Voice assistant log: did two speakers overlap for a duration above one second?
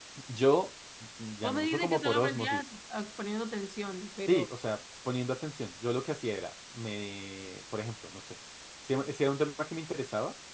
Yes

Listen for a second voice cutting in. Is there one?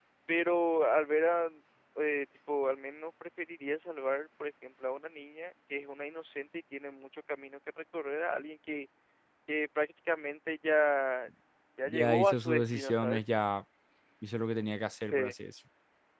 Yes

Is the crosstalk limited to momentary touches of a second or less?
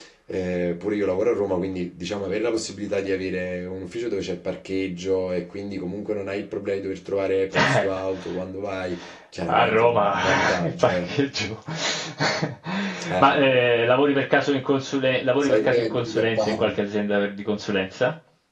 No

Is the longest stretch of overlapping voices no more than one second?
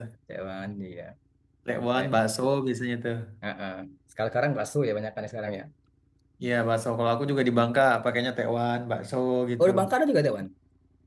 Yes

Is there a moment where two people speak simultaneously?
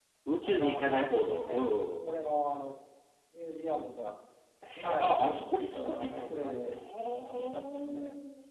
Yes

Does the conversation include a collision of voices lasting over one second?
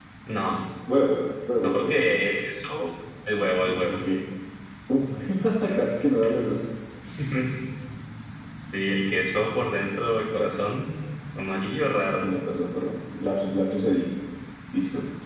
No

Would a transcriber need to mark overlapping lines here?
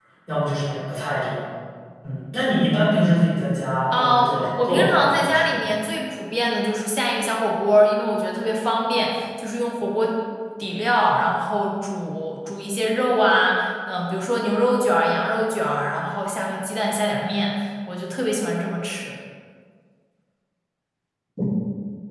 Yes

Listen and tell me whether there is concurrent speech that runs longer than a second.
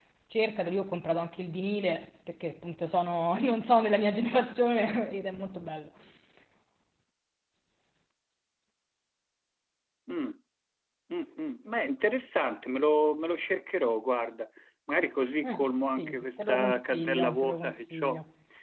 Yes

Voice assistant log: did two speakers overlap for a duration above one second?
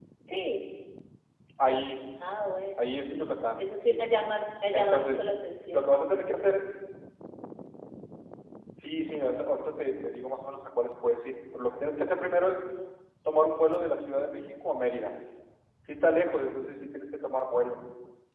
No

